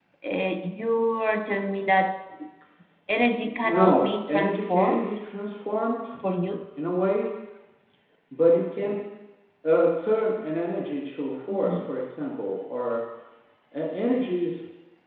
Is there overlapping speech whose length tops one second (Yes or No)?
Yes